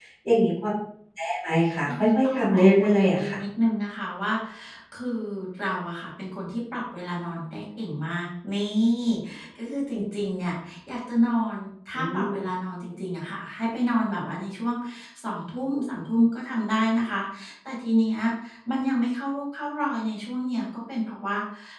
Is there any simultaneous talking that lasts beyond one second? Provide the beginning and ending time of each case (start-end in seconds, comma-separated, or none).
1.9-3.4